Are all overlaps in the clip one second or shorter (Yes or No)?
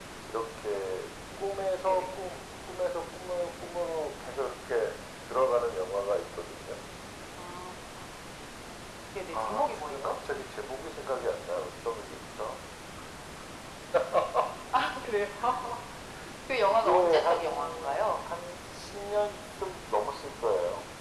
No